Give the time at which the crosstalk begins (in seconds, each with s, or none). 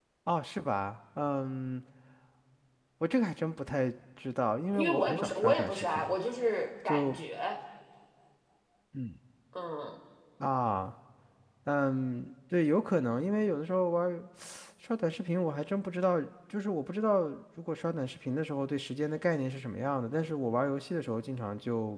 4.7 s